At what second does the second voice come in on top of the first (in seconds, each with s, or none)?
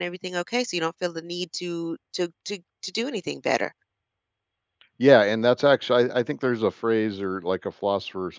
none